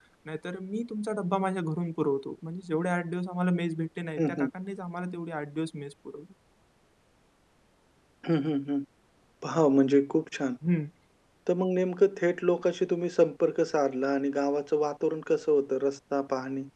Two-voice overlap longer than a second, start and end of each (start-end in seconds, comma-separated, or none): none